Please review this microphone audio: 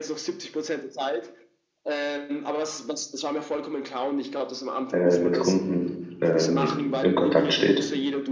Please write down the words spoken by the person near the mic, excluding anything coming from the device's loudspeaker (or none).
äh, mit Kunden ähm, im Kontakt steht.